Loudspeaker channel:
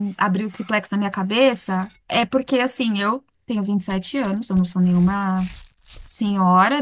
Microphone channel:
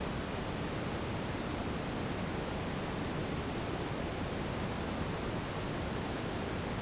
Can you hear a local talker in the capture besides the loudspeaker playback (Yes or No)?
No